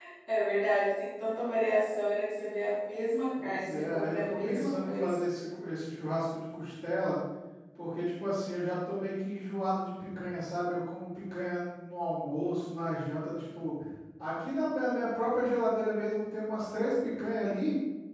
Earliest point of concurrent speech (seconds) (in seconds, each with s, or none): 3.4 s